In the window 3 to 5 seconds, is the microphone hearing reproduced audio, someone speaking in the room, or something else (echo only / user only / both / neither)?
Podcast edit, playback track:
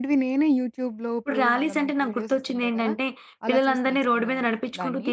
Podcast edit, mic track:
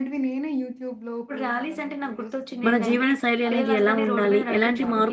both